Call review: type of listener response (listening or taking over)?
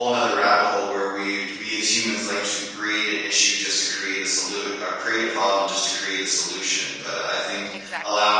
listening